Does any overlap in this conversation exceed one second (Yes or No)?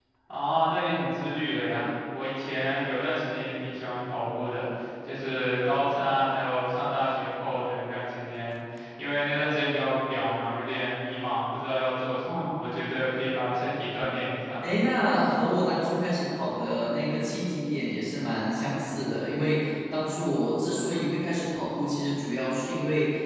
No